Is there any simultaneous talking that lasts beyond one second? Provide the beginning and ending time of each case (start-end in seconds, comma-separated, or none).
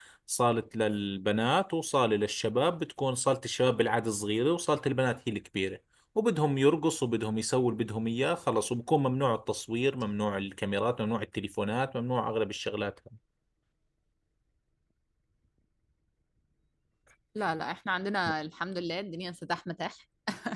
none